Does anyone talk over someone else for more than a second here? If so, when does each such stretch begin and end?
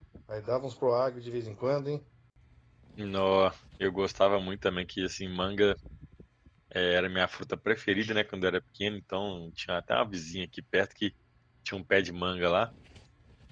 none

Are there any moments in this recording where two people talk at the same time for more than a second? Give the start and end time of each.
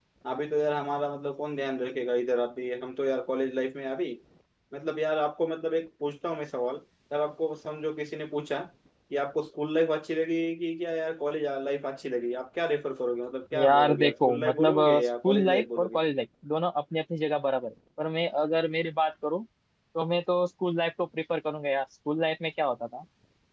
13.6-16.0

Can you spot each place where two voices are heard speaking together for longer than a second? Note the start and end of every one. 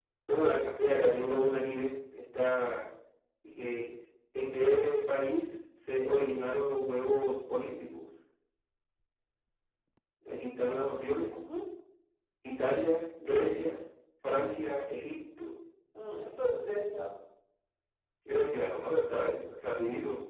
none

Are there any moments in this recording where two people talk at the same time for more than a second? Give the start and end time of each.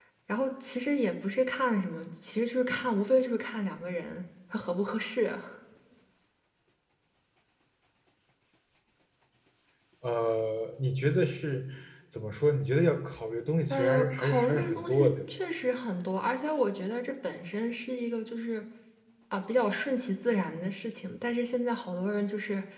13.7-15.3

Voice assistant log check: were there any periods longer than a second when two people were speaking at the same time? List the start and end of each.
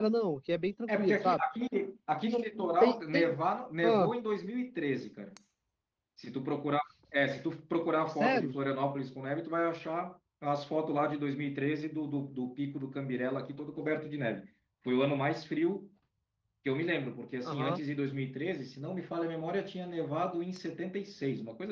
none

